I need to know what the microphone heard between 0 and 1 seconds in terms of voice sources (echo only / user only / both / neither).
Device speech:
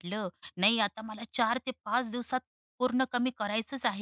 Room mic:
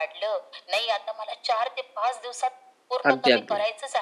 echo only